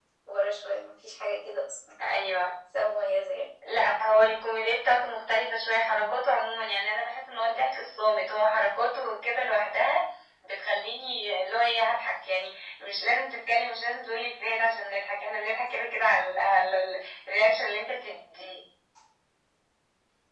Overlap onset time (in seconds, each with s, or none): none